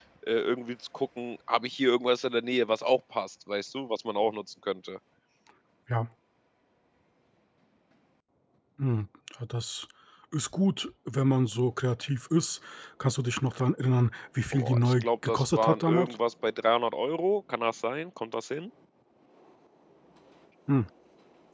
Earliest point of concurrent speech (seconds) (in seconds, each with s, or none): 14.5 s